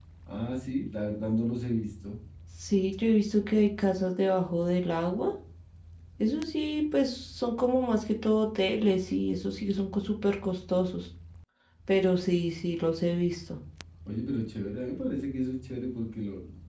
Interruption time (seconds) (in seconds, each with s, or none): none